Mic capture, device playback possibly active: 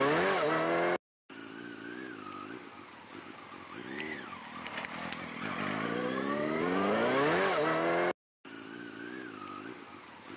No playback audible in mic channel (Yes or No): Yes